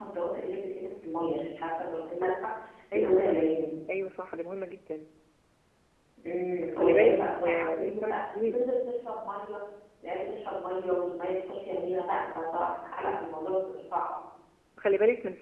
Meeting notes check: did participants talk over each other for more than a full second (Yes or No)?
Yes